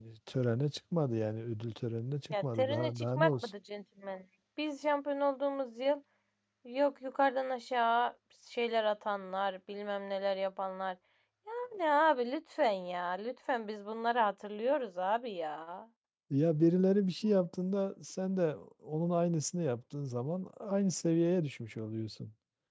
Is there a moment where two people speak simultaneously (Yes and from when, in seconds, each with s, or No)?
Yes, from 2.3 s